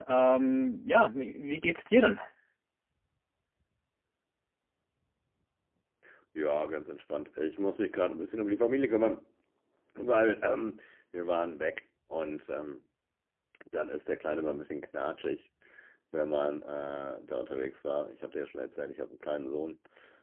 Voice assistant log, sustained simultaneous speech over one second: none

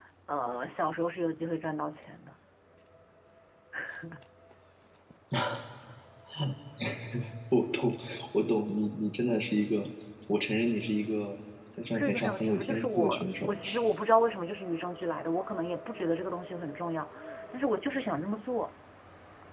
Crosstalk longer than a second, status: present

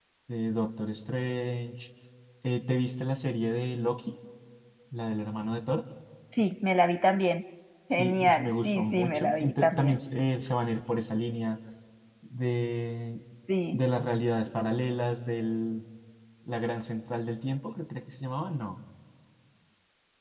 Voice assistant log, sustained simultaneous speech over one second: present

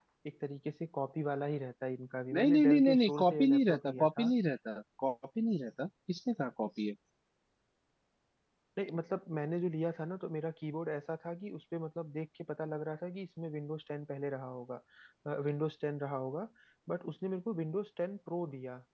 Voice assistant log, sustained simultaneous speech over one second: present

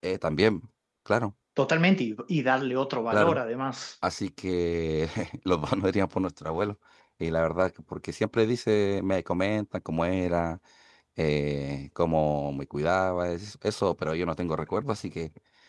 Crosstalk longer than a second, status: none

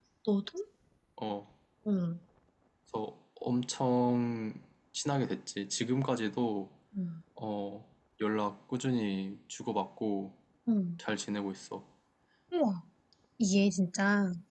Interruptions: none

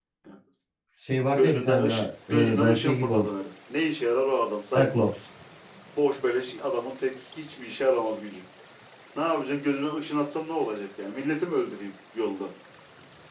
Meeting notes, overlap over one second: present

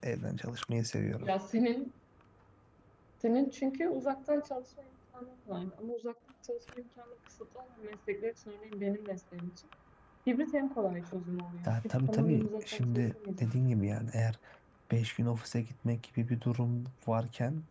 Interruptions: present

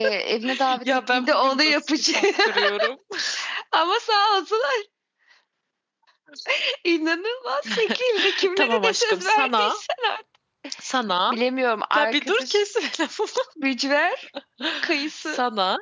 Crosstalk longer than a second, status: present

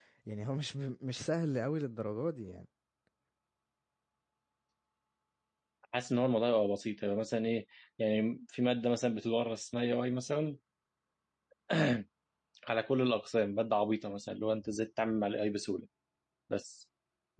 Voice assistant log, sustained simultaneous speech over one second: none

